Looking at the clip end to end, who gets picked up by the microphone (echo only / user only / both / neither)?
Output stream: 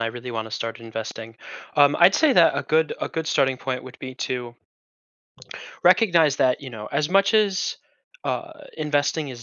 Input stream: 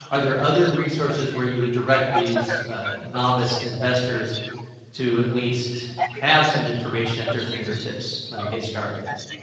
both